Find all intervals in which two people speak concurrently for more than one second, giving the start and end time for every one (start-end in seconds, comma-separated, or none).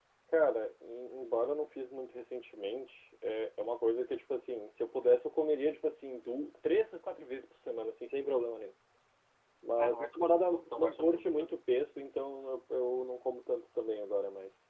9.8-11.5